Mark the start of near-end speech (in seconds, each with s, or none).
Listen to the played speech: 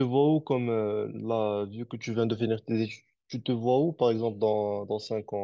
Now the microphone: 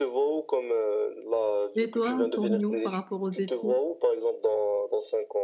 1.8 s